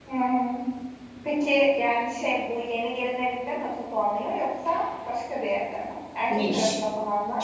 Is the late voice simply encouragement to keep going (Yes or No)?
No